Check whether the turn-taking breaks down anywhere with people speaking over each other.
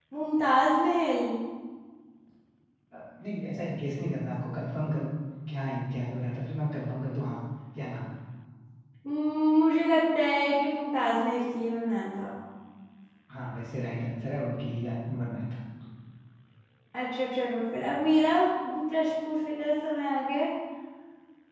No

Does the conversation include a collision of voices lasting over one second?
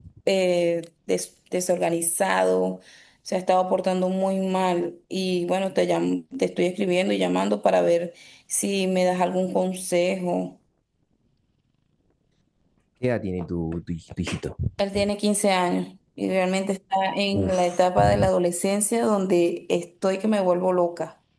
No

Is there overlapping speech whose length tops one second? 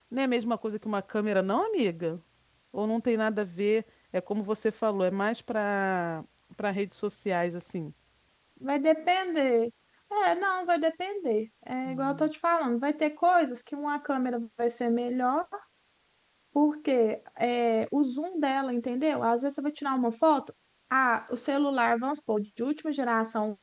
No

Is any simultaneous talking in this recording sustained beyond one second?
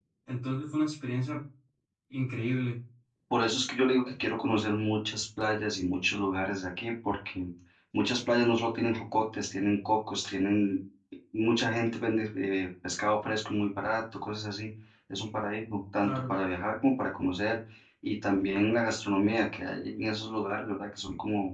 No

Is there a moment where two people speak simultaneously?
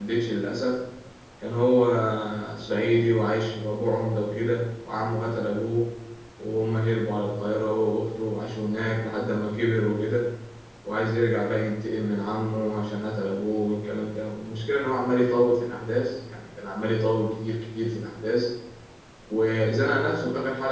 No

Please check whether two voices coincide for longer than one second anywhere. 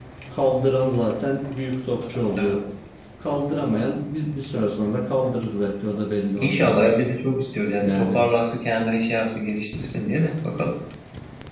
No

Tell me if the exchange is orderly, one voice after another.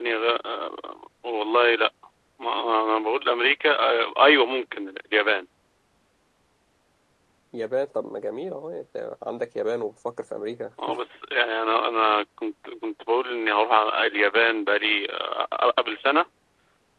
Yes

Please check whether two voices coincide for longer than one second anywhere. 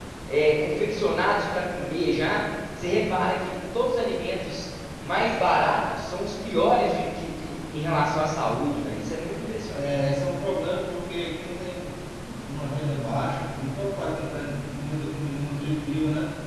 No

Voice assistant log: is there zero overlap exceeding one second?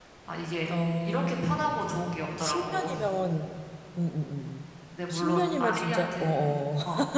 No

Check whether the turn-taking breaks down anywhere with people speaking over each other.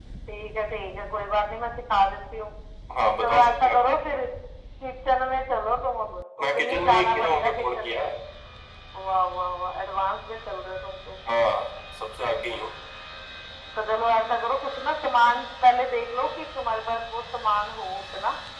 Yes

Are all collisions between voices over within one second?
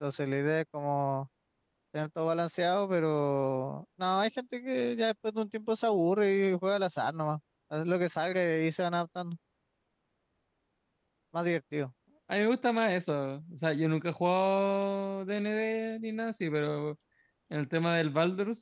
Yes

